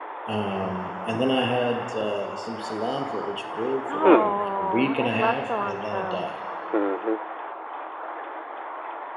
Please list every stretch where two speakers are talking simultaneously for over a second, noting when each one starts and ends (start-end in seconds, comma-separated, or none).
3.9-6.3